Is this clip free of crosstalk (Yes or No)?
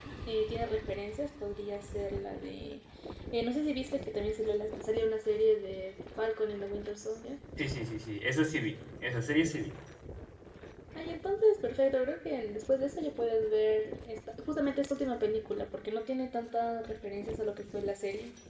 Yes